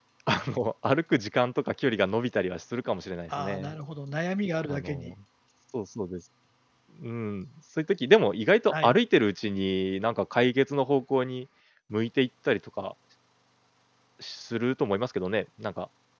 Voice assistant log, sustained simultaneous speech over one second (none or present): none